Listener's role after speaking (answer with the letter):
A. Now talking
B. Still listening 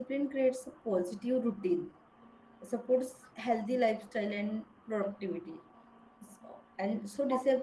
B